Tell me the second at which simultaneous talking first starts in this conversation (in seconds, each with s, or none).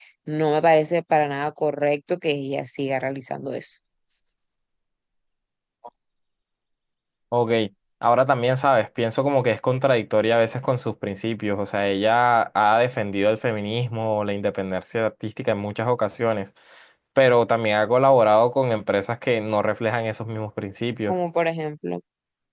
none